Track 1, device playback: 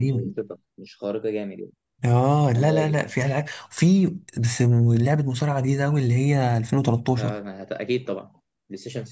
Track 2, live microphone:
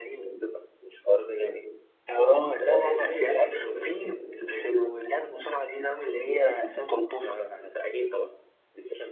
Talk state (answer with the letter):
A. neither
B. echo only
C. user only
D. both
D